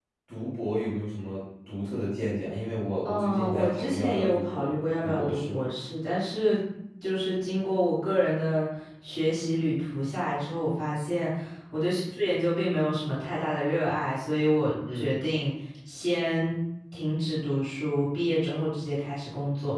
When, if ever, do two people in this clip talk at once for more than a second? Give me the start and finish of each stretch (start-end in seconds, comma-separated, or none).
3.0-5.6